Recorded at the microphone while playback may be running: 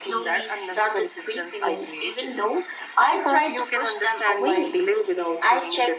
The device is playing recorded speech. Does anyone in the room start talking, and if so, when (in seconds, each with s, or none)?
none